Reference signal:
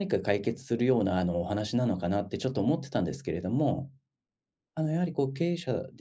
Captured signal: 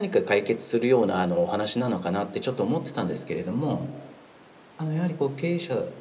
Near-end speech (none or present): none